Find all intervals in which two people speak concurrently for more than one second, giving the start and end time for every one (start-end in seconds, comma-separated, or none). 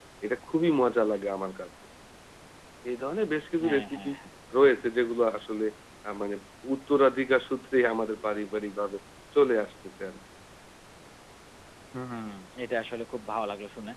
none